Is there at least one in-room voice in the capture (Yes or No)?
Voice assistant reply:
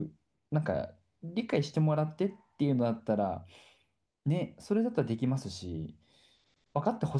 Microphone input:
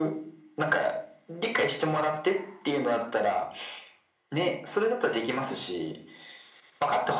No